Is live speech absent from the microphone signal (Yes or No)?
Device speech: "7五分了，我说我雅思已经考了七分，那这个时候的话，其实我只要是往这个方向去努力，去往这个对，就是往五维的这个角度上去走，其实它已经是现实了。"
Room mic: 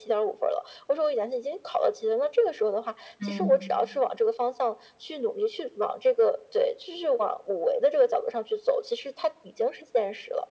No